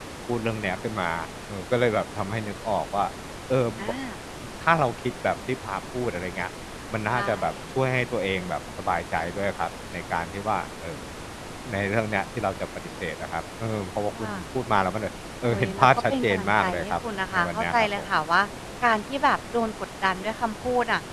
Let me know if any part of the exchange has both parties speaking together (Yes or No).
Yes